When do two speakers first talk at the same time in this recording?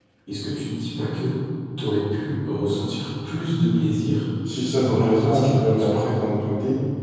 4.8 s

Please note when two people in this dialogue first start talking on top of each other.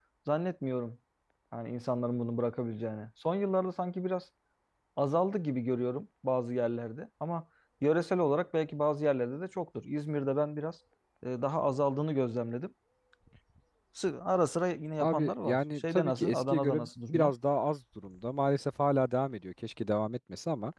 15.0 s

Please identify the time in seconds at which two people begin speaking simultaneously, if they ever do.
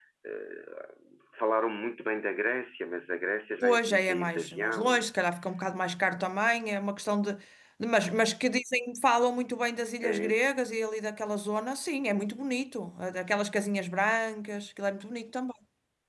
3.6 s

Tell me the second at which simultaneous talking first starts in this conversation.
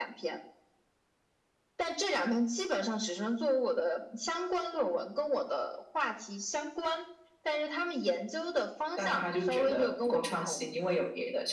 9.0 s

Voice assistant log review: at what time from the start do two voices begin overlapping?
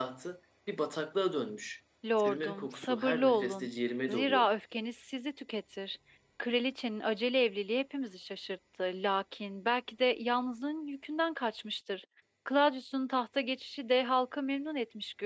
2.2 s

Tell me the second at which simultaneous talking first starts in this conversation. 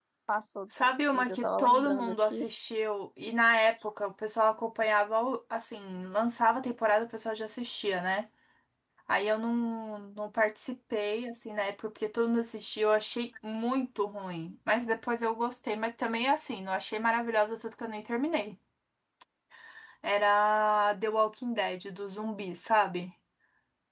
0.8 s

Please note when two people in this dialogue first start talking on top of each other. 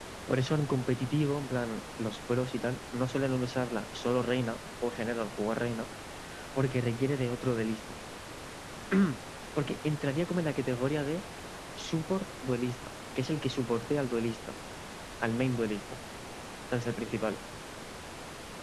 none

